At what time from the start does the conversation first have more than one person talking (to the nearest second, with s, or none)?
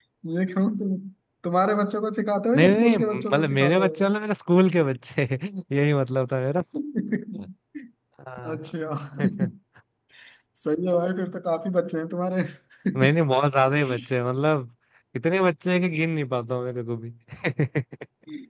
3 s